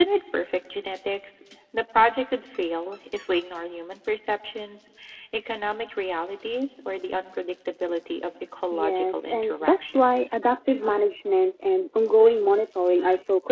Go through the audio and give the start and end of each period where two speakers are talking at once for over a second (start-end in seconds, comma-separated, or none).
8.7-10.2